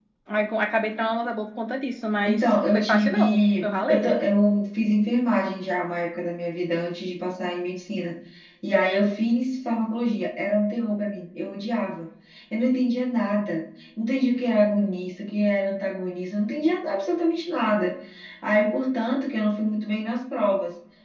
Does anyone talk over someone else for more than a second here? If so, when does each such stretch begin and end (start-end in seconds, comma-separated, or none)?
2.2-4.1